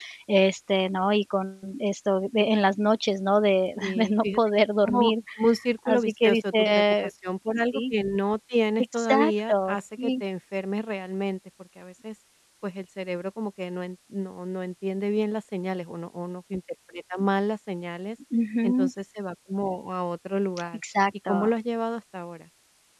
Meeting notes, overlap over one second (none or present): present